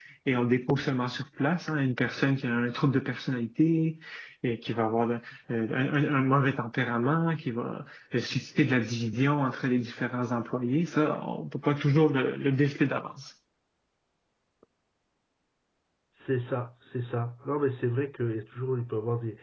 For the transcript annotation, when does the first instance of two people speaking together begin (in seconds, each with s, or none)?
none